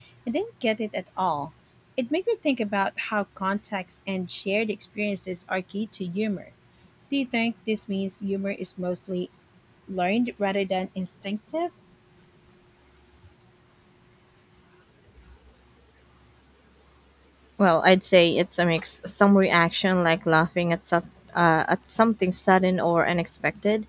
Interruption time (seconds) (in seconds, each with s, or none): none